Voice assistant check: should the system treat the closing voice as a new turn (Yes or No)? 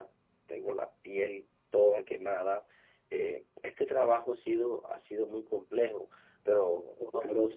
Yes